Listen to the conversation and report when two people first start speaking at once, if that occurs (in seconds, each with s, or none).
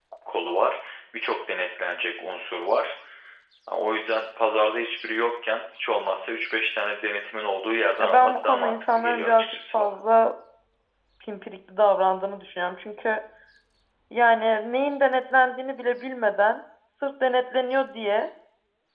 8.0 s